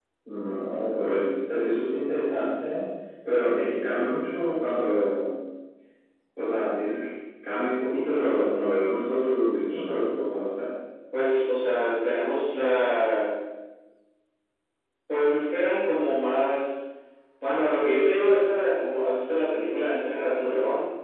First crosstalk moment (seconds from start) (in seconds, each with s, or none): none